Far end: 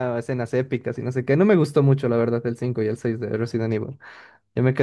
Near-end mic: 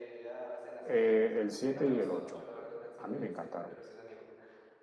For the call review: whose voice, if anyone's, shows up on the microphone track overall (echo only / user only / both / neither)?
both